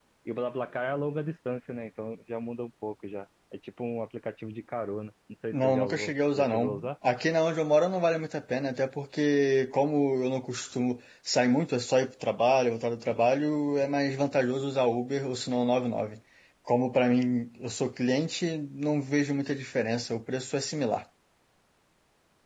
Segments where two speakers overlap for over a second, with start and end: 5.5-6.9

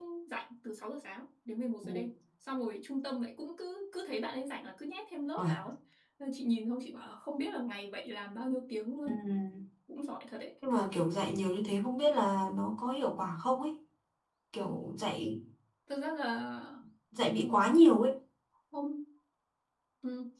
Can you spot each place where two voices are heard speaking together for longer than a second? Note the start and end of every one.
none

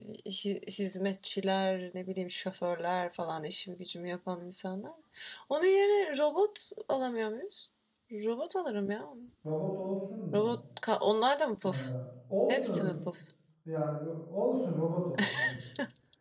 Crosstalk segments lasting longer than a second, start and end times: none

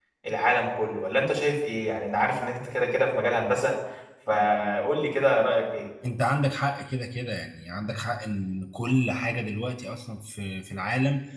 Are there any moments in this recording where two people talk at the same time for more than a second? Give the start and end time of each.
none

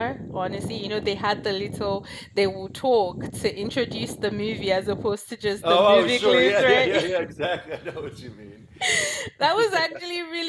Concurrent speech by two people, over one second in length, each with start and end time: 5.7-7.1

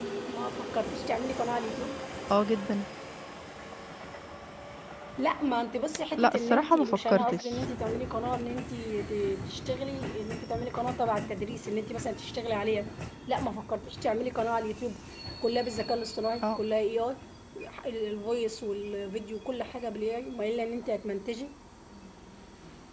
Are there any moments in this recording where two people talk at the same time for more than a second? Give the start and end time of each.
6.2-7.7

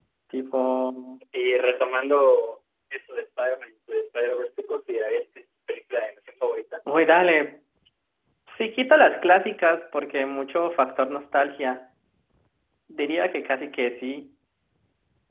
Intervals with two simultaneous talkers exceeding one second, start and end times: none

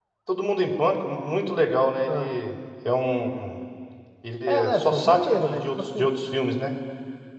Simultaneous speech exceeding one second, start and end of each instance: 4.5-6.2

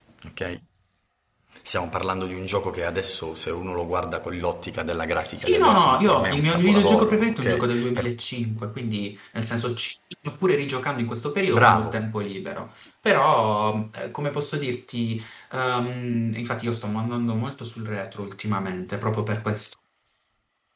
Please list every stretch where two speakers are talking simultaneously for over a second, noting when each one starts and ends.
5.4-8.1

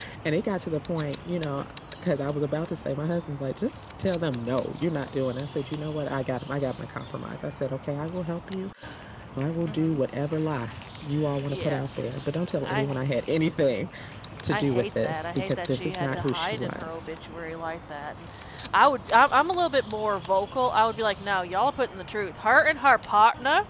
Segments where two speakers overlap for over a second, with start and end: 14.5-17.0

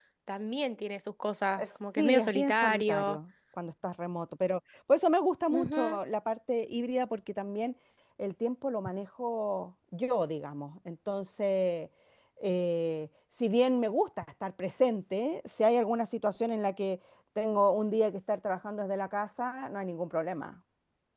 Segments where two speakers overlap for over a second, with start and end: 1.6-3.2

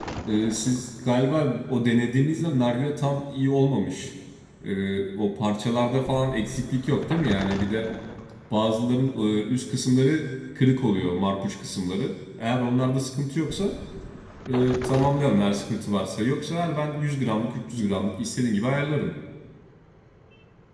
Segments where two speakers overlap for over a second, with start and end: none

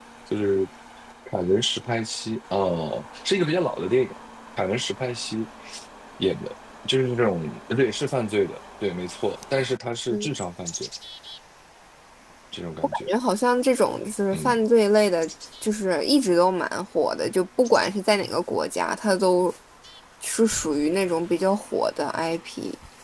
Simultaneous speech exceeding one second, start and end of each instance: none

